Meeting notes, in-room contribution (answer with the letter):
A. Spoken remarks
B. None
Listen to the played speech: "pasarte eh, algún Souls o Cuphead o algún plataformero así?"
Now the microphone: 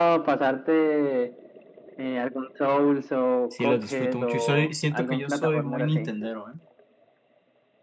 A